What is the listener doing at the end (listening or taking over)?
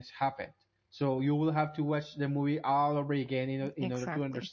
taking over